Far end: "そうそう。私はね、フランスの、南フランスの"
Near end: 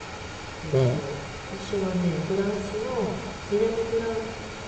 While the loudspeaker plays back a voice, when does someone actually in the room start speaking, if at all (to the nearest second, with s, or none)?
1 s